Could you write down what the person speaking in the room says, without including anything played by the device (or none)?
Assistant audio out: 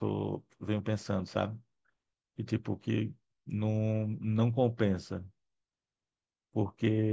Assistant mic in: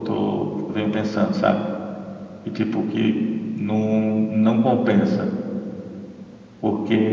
none